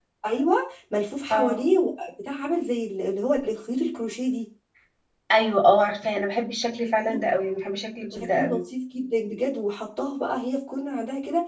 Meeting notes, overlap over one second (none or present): none